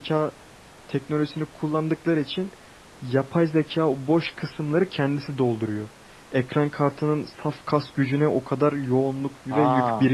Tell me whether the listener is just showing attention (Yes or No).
No